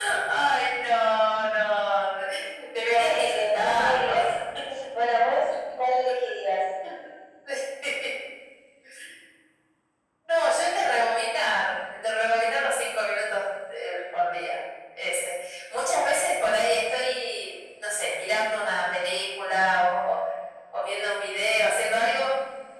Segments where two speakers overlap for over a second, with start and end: 2.9-4.1

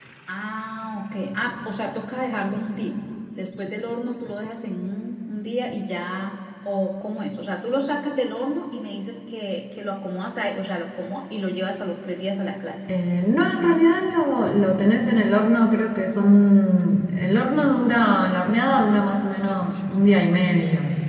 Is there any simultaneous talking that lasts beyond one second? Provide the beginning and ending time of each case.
none

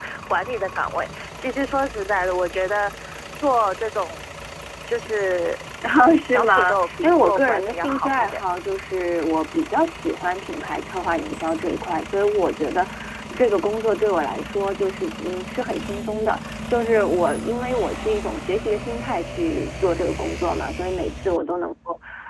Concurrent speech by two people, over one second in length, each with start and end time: 6.2-8.4

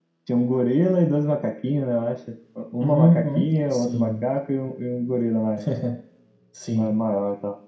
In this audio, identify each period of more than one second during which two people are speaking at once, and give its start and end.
2.8-4.3

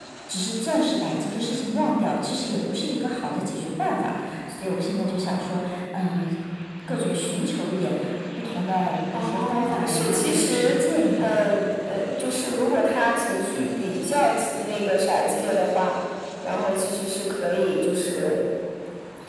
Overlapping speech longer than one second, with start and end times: 9.1-10.7

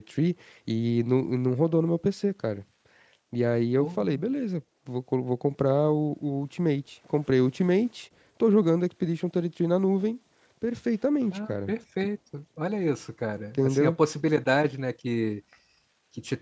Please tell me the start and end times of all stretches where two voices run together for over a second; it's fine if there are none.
none

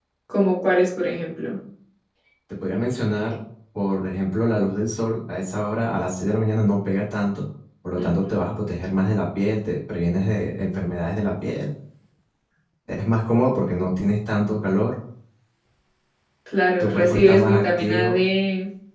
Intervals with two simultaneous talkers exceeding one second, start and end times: 16.8-18.2

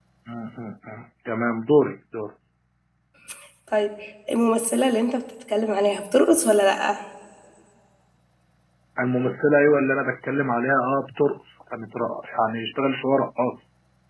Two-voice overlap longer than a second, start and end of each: none

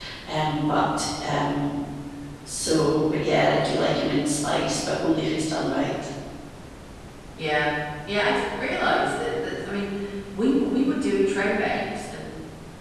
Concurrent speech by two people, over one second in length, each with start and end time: none

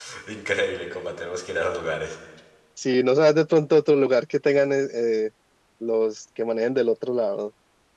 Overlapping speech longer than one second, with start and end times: none

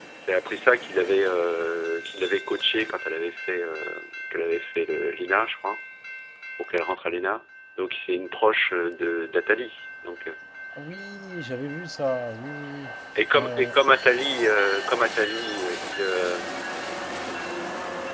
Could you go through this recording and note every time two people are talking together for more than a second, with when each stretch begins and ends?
none

